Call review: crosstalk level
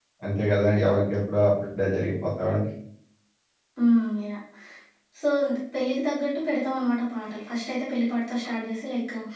none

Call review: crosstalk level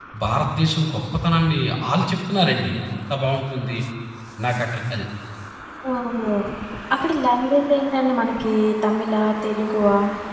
none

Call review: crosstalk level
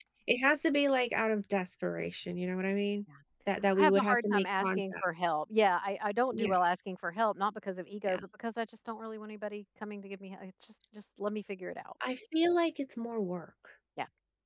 present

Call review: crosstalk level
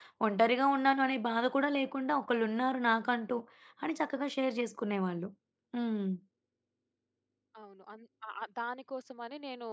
none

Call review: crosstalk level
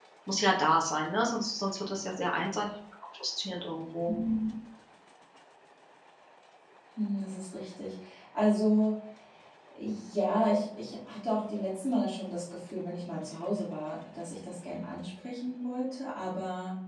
none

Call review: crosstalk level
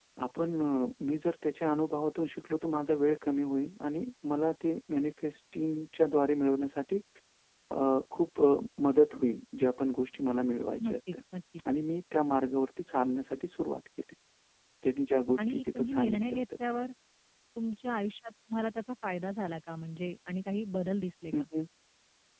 present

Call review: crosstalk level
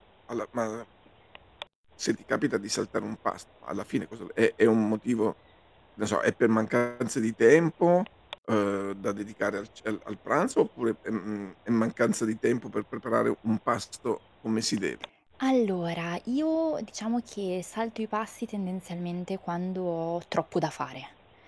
none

